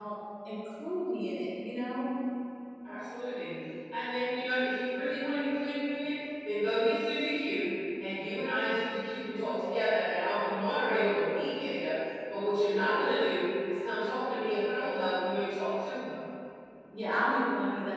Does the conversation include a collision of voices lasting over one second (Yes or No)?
No